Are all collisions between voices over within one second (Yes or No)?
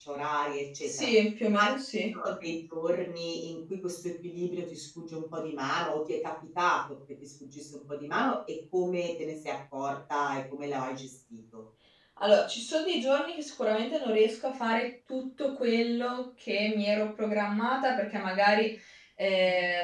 Yes